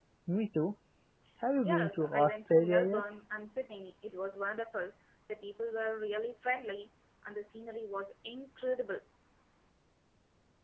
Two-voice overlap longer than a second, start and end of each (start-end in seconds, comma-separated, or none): 1.6-3.0